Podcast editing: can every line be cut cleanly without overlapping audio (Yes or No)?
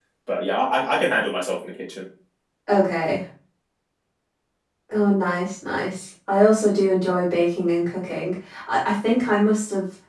Yes